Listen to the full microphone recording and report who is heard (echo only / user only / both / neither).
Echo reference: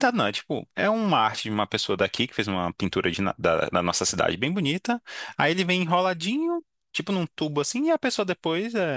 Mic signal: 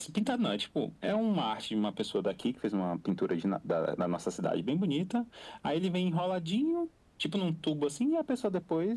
echo only